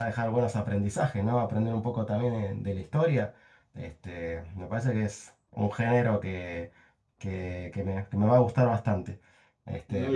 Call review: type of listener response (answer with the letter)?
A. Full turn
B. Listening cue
A